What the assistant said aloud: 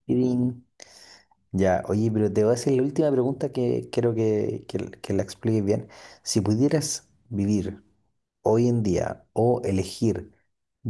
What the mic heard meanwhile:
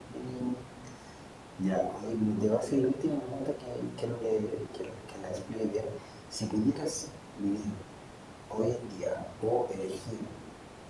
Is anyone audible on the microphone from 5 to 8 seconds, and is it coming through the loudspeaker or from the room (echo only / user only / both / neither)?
echo only